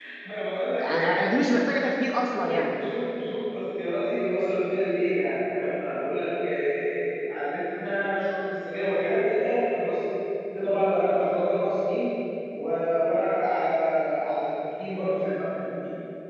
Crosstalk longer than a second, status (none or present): none